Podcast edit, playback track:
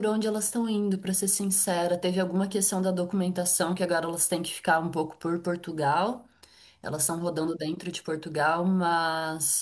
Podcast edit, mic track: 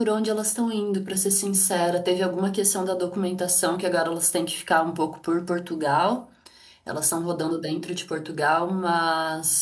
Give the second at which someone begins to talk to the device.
none

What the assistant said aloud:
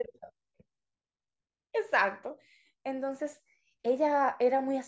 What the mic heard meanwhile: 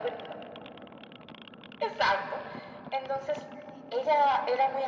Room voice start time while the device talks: none

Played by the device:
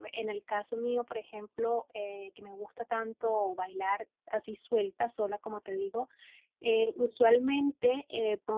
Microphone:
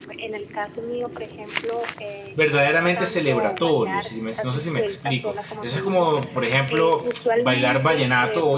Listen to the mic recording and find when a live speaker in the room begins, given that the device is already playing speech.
2.3 s

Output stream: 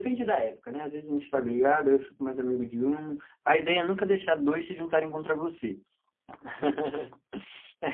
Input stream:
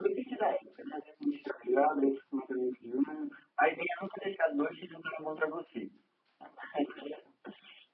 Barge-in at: none

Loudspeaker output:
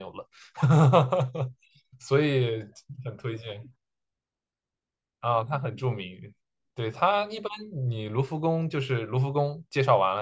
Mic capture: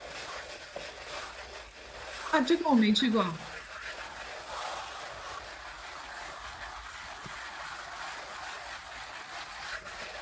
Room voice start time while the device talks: 2.3 s

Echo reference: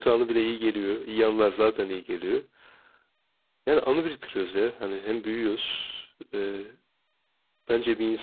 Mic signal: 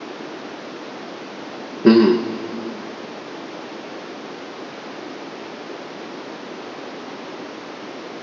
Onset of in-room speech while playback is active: 1.8 s

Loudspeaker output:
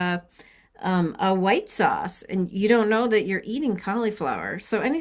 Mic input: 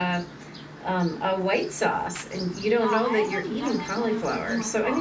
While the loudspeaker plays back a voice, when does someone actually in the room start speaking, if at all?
2.8 s

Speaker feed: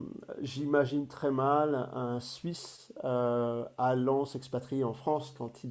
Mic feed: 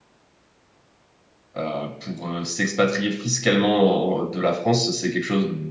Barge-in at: 1.6 s

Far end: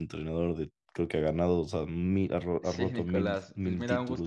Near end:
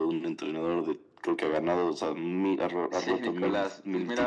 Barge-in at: none

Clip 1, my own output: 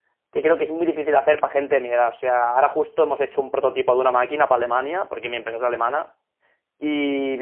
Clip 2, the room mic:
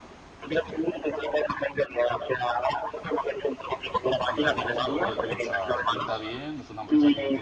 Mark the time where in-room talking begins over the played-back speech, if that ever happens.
4.3 s

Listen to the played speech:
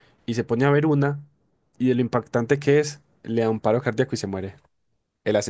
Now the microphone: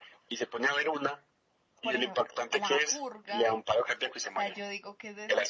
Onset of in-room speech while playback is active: 1.8 s

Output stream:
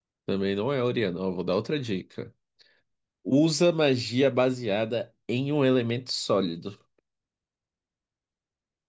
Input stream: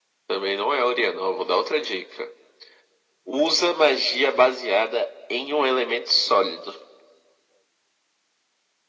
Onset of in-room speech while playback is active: none

